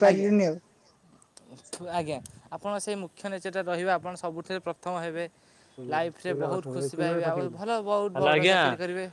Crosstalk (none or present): present